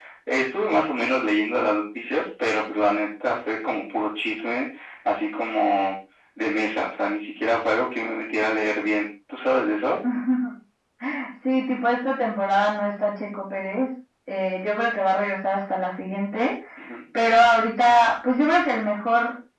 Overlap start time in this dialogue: none

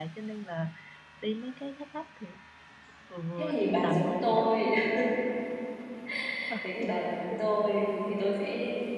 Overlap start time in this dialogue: 3.4 s

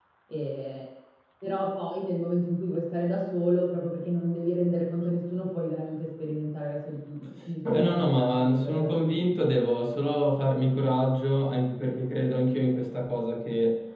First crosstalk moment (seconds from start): 7.7 s

